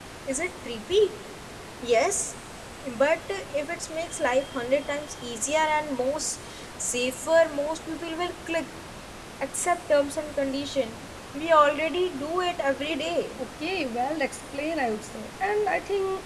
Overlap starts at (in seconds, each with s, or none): none